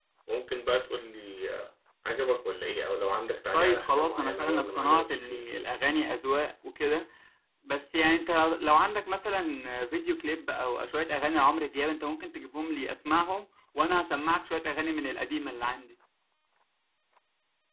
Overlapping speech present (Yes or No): Yes